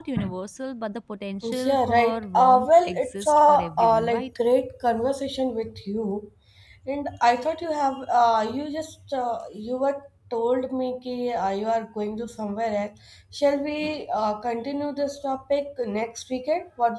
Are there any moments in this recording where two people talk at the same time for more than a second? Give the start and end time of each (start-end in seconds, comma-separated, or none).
1.6-4.4